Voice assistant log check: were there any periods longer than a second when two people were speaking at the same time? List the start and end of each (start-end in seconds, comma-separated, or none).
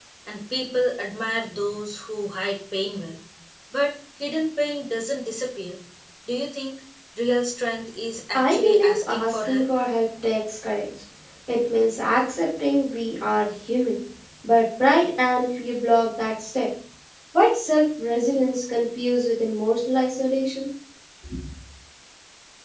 8.3-9.7